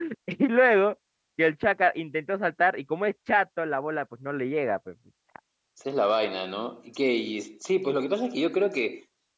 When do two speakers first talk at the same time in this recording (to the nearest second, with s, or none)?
none